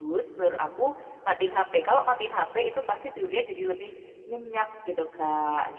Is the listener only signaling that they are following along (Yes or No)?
No